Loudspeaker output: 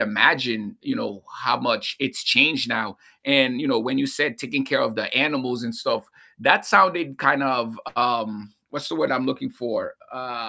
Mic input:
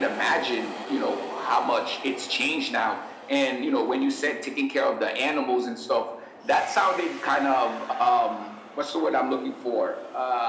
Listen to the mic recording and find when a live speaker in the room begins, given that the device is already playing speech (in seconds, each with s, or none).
none